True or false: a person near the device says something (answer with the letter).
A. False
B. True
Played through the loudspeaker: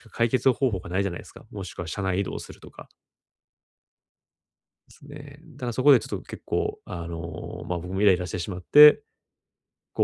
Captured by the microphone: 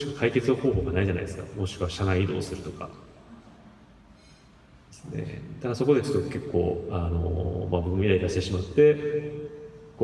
A